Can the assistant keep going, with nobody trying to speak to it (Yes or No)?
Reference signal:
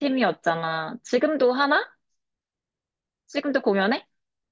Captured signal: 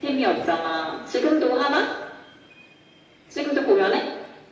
Yes